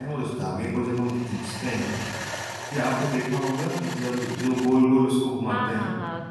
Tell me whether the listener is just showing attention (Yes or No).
No